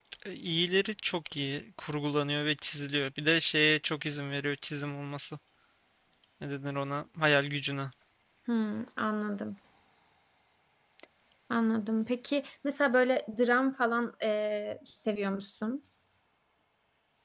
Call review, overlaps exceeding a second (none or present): none